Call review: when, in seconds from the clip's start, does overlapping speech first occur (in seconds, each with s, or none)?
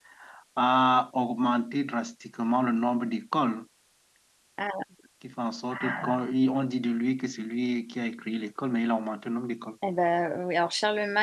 none